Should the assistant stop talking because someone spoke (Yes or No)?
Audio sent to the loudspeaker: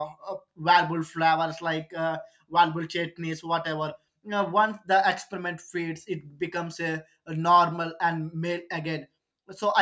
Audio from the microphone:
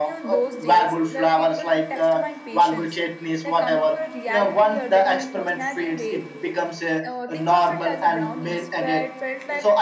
Yes